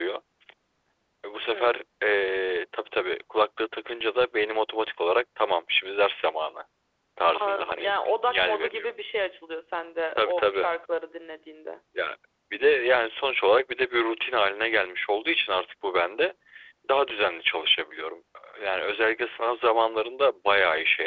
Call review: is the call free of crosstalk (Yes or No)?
No